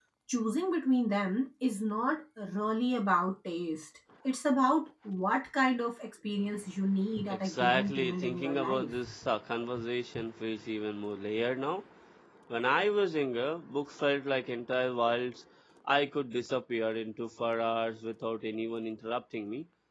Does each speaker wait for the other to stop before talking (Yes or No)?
No